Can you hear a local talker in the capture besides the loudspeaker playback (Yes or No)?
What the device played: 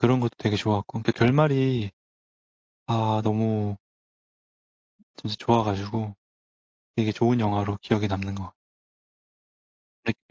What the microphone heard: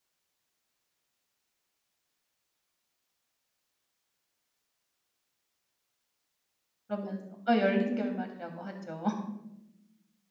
Yes